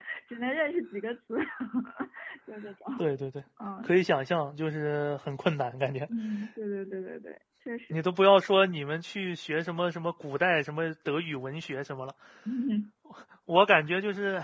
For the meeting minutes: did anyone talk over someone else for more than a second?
No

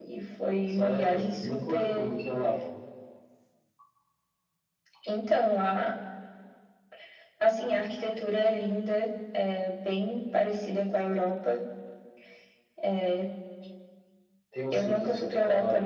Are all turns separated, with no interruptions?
No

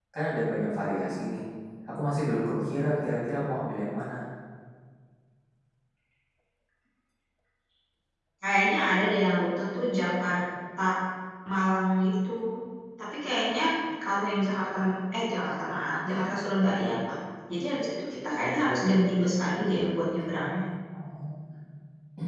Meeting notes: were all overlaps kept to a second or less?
Yes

